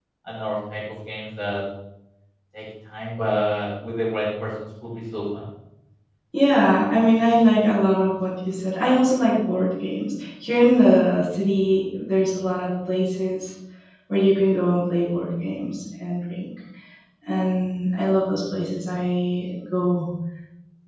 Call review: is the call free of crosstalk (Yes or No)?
Yes